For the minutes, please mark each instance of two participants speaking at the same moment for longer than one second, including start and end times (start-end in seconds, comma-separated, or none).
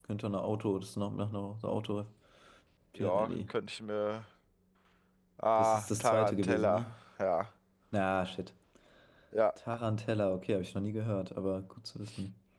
5.5-6.9